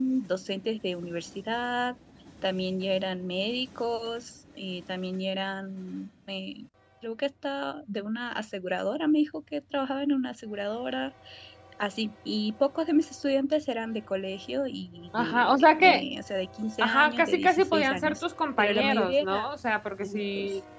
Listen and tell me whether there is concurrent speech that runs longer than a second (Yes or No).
Yes